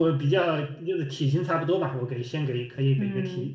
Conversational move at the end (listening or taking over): taking over